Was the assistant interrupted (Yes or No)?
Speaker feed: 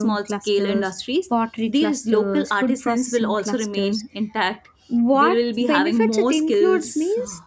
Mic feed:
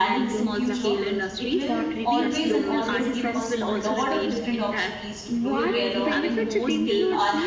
Yes